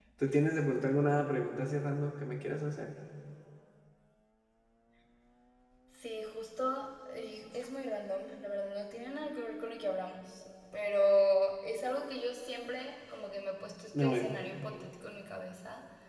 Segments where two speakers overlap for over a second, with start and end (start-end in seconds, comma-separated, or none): none